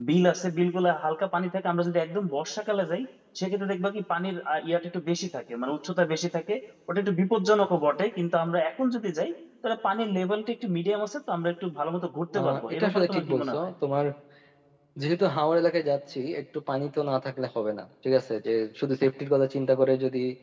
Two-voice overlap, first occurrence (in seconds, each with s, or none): 12.3 s